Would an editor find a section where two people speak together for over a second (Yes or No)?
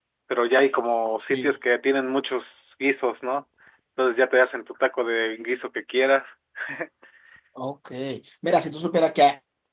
No